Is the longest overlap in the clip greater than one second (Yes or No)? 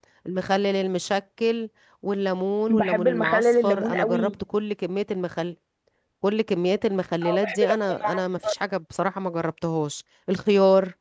Yes